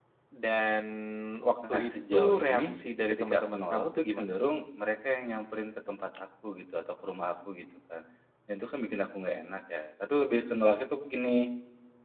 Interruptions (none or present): present